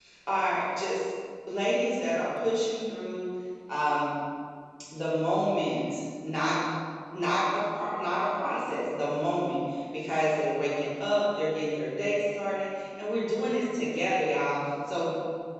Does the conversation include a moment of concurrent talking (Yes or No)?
No